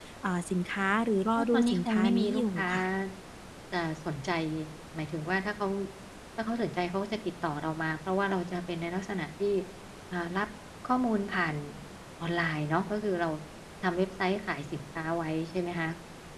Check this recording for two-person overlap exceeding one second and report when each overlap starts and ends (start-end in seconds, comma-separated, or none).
1.4-2.7